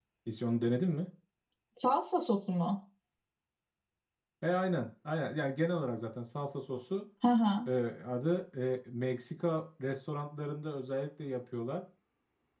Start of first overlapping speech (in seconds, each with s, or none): none